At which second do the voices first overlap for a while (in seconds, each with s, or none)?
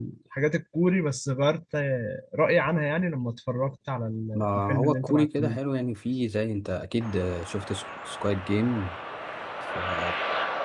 4.3 s